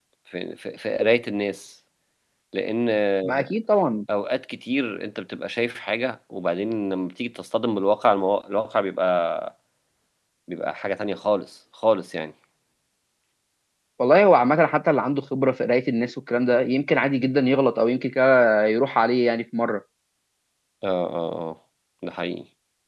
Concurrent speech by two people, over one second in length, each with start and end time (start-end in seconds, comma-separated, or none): none